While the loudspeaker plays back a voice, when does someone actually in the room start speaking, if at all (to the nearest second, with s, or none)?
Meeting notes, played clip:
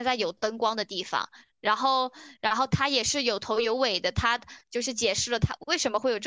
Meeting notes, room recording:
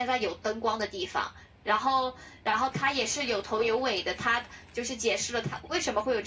none